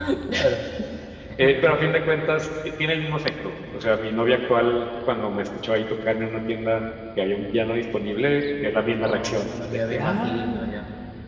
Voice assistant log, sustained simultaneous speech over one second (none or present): present